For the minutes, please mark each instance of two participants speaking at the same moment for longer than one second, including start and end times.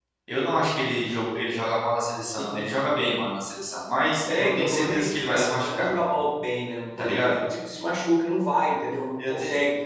4.4-5.9

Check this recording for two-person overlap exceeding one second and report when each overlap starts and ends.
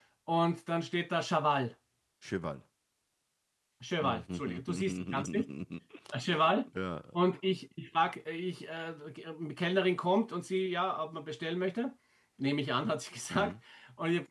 4.0-5.5

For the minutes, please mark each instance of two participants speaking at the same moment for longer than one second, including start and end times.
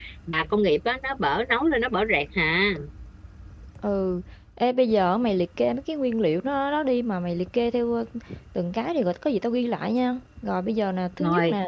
none

